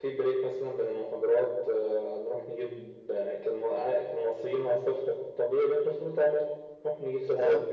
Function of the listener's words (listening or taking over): listening